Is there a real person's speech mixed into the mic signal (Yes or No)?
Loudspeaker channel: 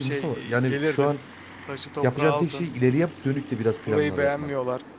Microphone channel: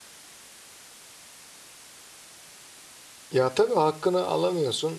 Yes